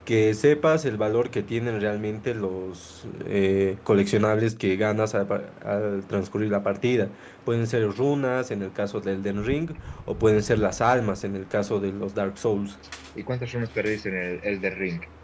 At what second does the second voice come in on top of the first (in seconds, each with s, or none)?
none